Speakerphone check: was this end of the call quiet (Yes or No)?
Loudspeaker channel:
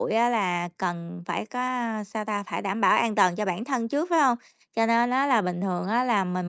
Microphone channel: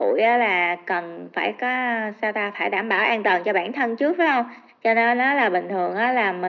Yes